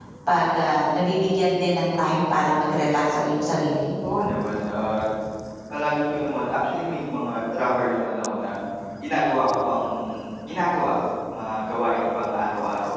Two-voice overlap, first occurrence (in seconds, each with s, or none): none